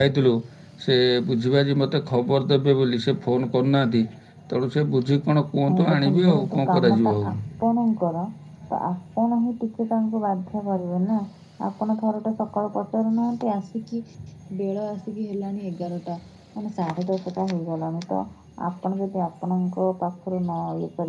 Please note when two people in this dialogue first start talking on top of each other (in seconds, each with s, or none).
5.7 s